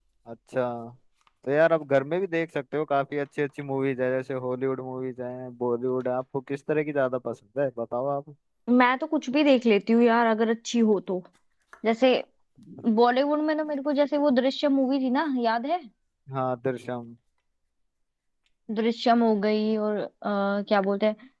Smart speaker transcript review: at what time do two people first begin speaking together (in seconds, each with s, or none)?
none